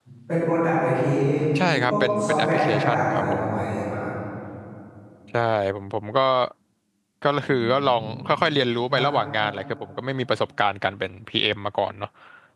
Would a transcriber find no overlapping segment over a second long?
No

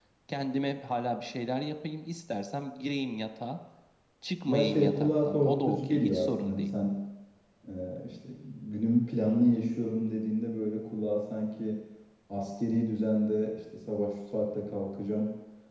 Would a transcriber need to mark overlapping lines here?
Yes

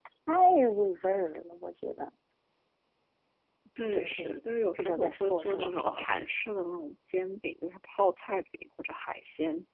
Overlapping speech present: Yes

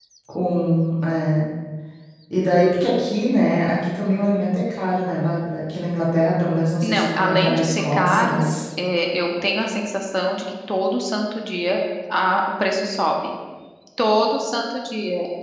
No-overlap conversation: No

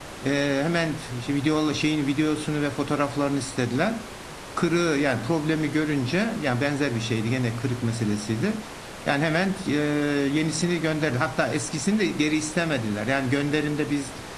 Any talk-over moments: No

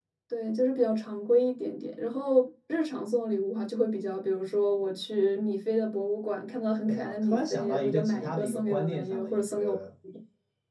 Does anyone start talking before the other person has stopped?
Yes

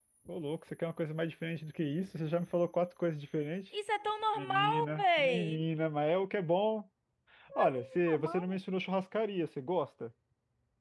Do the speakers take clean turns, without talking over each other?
No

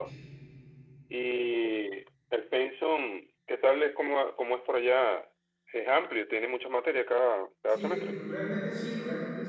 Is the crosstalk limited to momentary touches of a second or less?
Yes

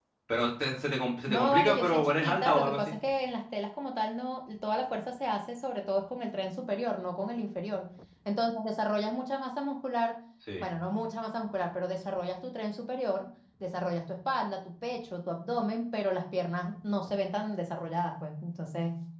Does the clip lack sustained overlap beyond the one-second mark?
No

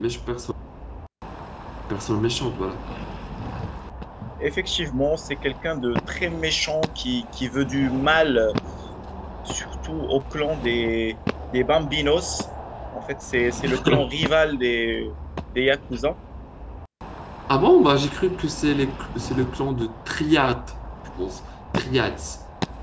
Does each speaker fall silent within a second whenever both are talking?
Yes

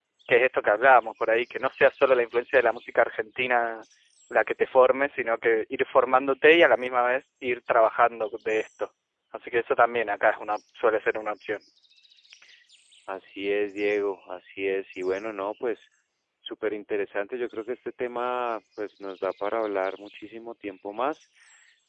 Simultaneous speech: No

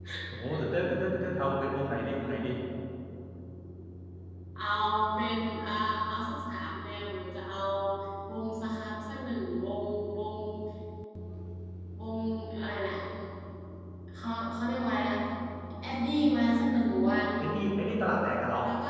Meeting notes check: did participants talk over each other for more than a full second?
No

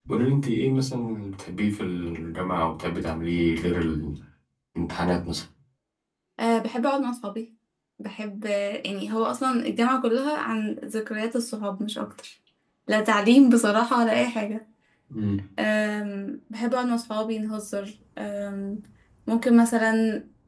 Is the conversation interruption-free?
Yes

